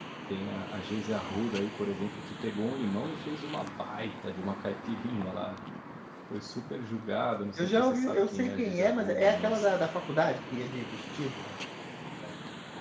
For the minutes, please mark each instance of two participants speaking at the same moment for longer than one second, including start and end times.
7.6-9.7

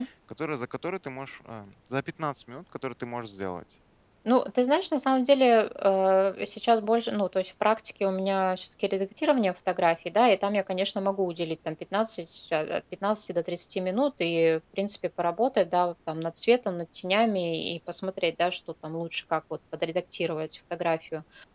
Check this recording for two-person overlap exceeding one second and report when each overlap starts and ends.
none

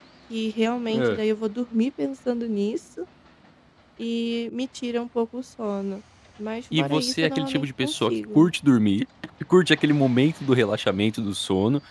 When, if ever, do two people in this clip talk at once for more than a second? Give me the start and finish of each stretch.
6.8-8.5

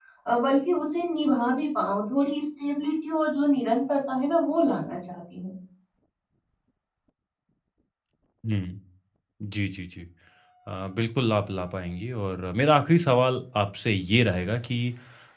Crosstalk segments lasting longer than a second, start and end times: none

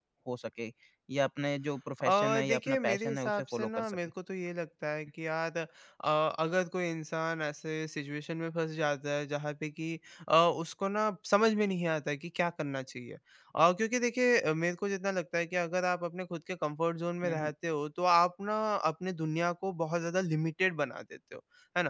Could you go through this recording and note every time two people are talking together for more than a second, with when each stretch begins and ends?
2.0-4.0

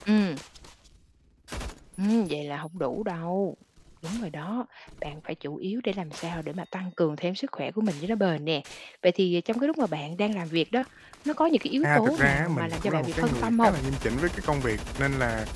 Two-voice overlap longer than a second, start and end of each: 11.8-13.7

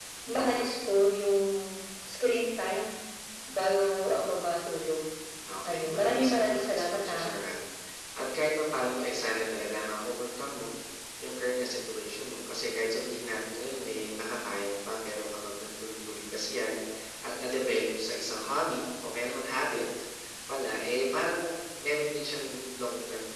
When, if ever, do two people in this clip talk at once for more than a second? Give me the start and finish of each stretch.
5.6-7.3

